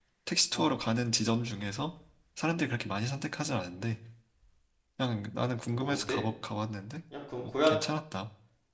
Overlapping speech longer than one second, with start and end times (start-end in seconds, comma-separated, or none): none